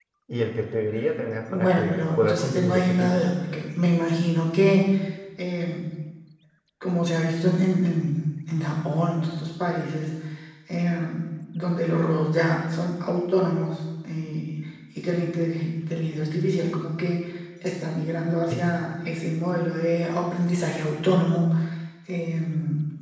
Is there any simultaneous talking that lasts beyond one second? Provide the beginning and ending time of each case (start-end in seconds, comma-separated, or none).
1.5-3.2